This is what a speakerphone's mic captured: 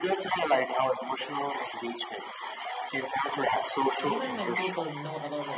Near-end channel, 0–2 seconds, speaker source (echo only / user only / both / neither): echo only